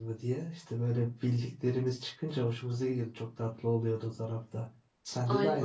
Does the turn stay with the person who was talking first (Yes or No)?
No